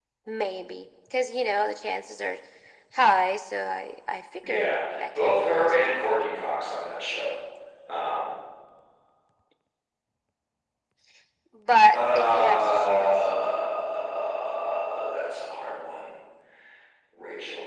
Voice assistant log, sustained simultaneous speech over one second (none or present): present